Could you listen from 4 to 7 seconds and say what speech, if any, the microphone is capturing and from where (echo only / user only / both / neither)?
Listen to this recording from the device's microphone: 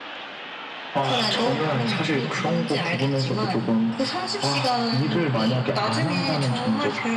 echo only